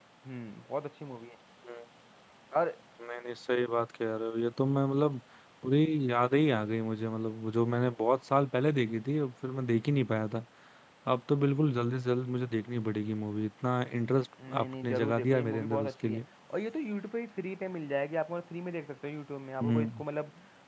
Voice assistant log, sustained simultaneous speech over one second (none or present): present